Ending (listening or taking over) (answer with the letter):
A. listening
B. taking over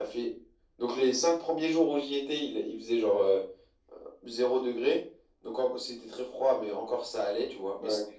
A